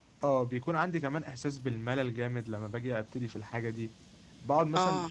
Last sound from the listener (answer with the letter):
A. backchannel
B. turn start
A